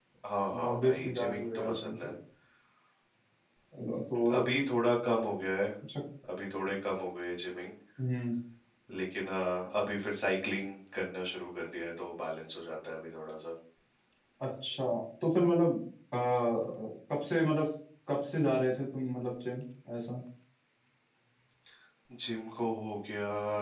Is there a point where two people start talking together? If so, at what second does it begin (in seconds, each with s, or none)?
0.7 s